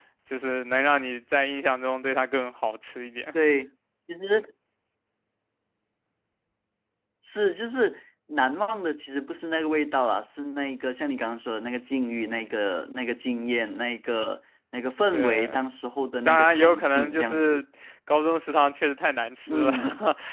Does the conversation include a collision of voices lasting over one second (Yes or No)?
Yes